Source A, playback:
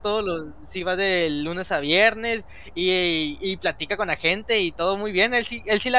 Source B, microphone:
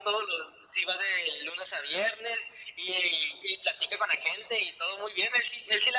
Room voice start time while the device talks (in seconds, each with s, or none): none